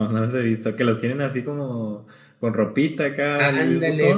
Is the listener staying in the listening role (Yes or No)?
No